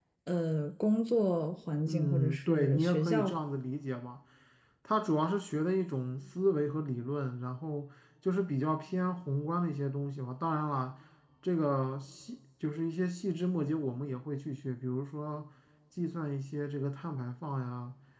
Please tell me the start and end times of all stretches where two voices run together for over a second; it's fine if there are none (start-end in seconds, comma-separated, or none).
1.9-3.3